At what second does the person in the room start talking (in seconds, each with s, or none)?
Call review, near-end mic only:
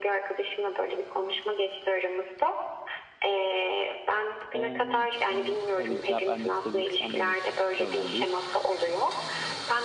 4.5 s